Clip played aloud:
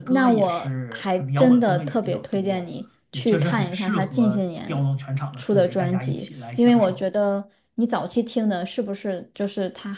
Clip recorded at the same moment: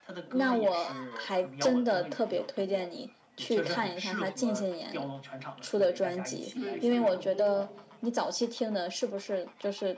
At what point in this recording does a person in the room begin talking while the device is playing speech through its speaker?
6.5 s

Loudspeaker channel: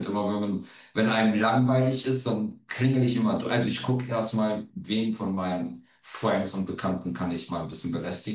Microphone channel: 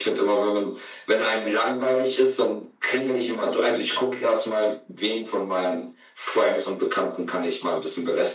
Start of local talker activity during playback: none

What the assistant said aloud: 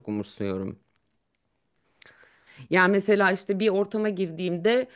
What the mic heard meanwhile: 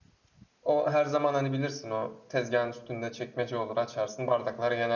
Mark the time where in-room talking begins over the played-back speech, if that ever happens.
0.6 s

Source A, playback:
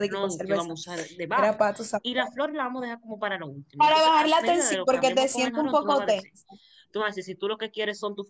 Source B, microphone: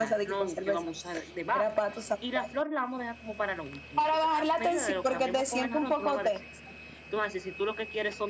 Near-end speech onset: none

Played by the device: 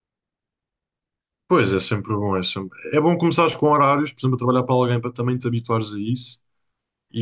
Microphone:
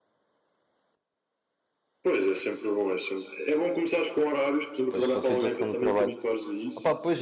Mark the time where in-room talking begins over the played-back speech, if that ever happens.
4.9 s

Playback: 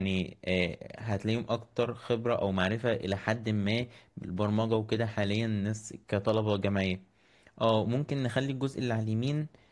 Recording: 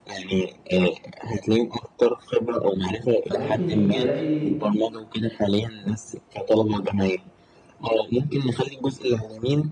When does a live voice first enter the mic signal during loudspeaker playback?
3.2 s

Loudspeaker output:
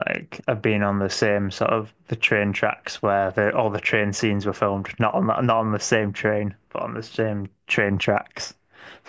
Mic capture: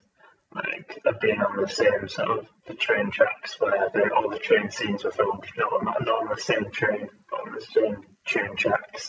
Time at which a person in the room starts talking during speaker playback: none

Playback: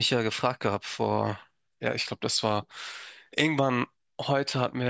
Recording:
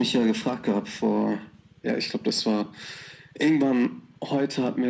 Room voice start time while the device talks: none

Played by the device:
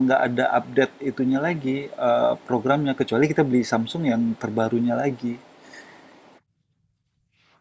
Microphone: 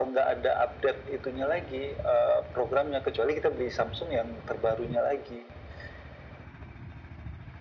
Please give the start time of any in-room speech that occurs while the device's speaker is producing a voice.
none

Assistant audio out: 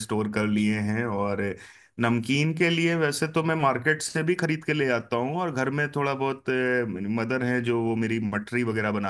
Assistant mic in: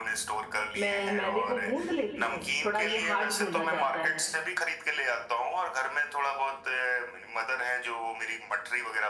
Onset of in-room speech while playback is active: 0.8 s

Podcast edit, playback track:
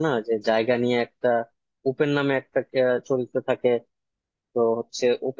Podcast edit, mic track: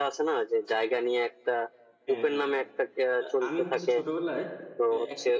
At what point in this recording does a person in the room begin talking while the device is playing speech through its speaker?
2.1 s

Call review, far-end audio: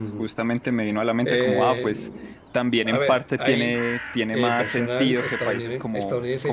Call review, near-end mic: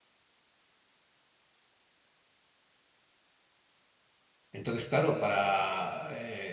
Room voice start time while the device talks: 4.5 s

